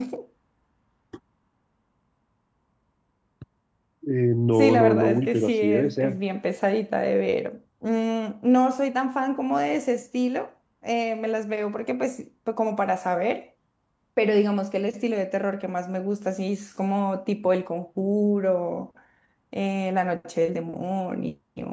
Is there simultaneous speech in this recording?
Yes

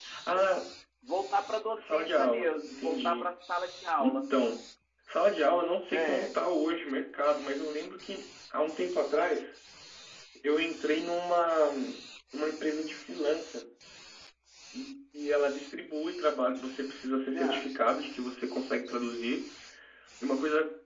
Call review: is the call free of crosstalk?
No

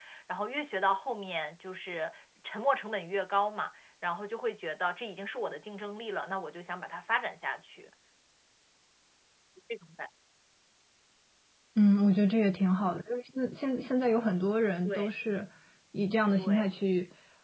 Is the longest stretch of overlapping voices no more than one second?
Yes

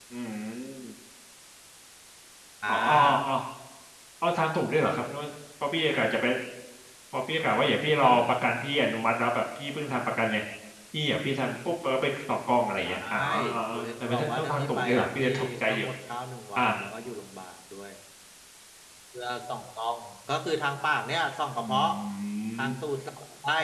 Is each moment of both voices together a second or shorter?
No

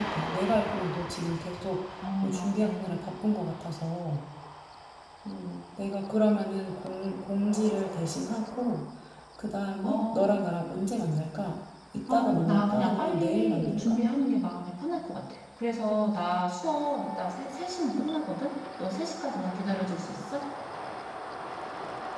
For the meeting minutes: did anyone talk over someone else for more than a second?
Yes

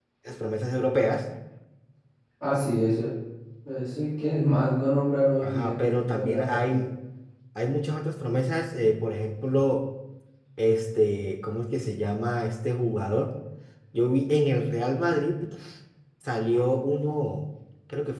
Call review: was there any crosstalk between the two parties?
Yes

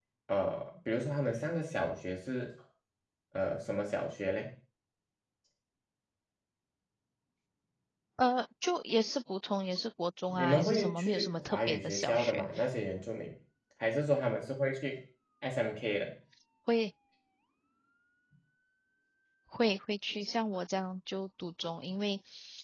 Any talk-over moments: Yes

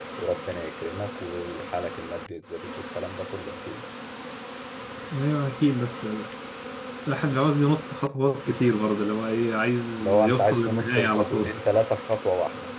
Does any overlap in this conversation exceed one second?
Yes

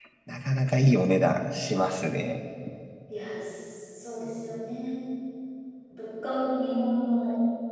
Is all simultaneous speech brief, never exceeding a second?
Yes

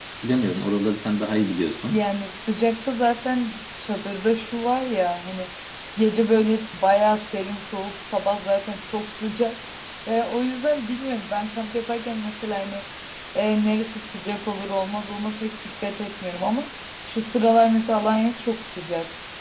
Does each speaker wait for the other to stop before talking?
Yes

